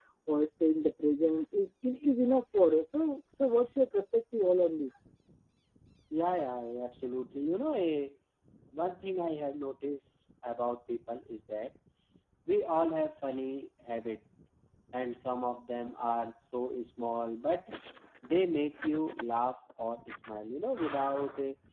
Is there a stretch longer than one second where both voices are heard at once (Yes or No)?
No